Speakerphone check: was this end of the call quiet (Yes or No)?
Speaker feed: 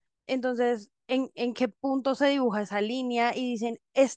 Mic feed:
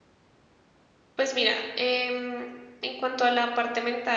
No